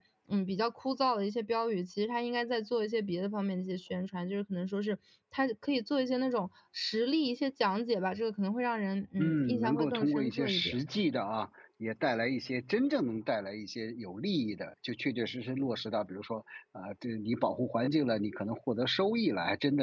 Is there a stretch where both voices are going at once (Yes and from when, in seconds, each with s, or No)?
Yes, from 9.2 s